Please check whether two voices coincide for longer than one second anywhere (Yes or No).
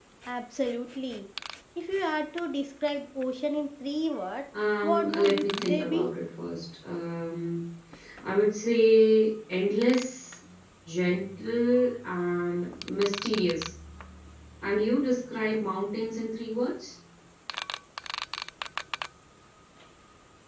Yes